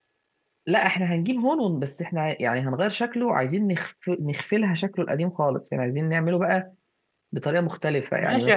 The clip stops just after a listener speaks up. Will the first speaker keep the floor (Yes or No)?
No